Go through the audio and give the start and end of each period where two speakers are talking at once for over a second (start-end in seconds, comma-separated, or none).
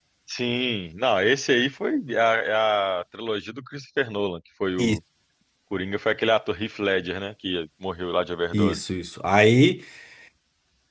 none